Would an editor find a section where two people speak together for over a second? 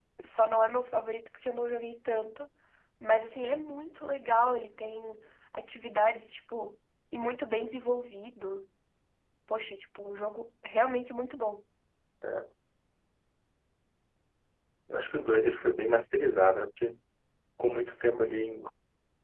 No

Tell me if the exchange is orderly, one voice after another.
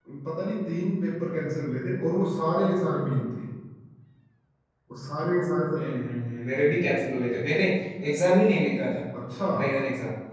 Yes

